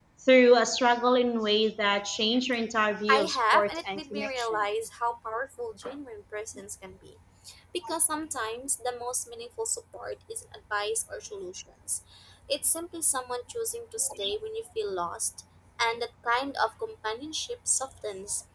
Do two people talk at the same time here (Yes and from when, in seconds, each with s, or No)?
Yes, from 3.1 s